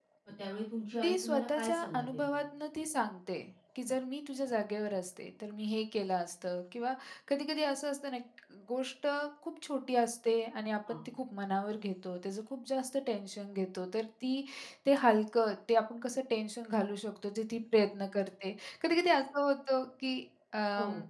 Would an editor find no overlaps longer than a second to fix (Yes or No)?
No